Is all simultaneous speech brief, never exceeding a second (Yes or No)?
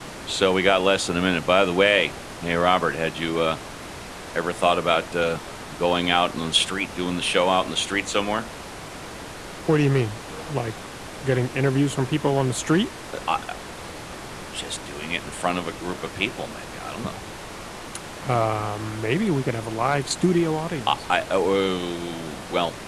Yes